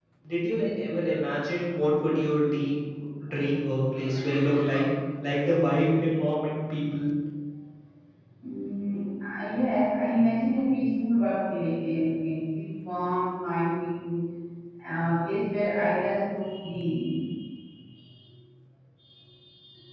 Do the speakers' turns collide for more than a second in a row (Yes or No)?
No